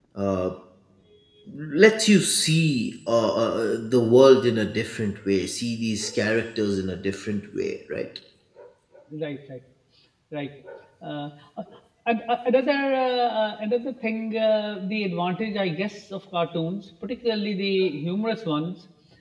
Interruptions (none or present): none